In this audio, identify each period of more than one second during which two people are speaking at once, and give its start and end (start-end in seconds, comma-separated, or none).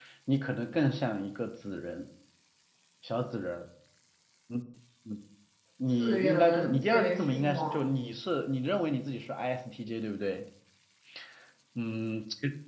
5.9-7.8